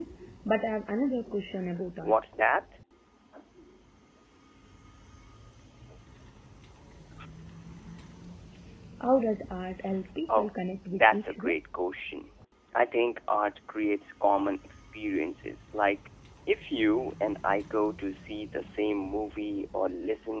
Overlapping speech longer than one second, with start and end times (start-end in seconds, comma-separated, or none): 10.3-11.6